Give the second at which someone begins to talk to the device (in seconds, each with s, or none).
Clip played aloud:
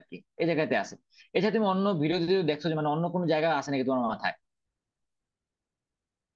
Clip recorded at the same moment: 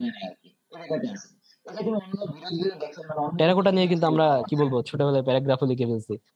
3.4 s